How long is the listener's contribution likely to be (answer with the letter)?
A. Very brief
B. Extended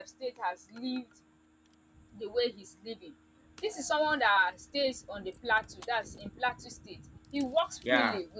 A